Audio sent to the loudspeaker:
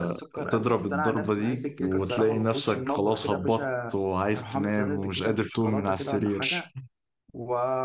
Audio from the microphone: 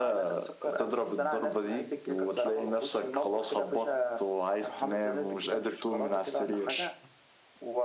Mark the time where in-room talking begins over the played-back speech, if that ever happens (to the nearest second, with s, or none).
none